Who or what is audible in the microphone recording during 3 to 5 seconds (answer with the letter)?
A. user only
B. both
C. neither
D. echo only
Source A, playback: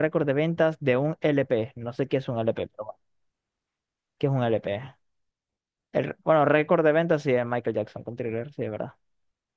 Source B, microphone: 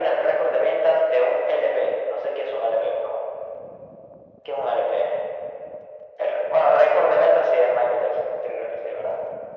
D